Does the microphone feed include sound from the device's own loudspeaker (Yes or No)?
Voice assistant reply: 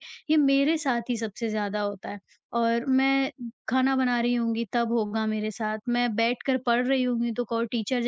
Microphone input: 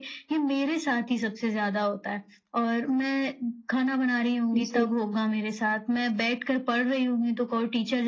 Yes